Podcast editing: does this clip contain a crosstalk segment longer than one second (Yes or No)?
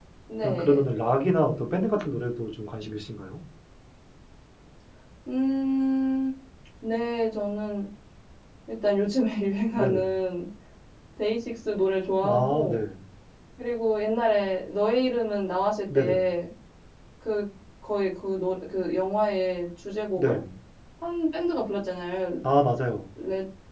No